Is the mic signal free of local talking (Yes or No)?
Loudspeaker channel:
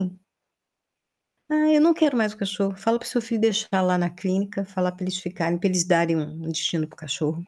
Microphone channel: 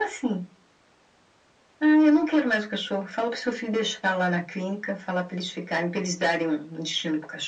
Yes